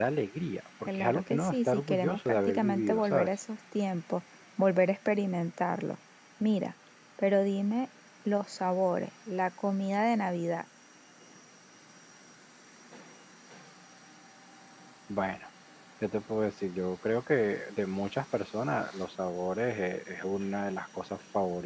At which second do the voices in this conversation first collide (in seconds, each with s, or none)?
0.8 s